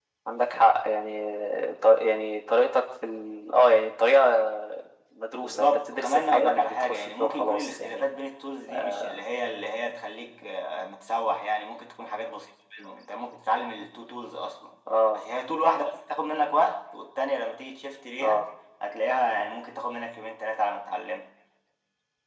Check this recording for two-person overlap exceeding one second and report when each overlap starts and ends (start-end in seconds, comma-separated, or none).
5.3-8.1